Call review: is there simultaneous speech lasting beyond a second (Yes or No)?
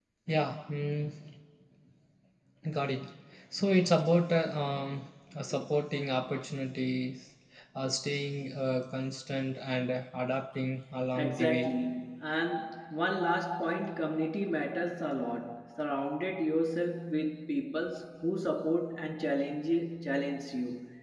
No